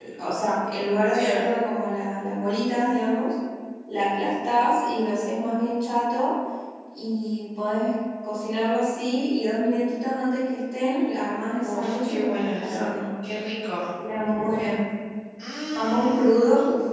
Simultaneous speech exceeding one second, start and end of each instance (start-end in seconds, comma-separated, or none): 11.6-12.9